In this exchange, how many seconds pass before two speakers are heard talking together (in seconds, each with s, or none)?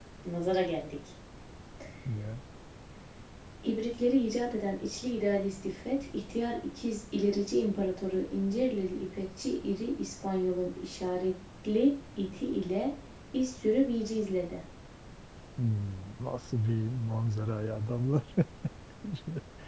none